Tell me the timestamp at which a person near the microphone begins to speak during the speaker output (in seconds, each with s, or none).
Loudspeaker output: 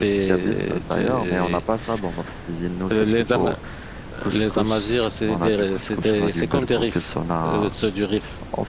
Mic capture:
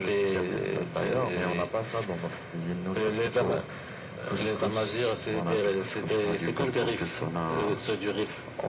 none